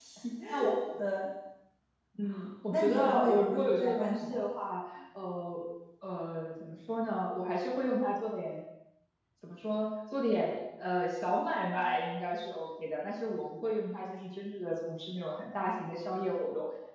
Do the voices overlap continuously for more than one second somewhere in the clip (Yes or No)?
Yes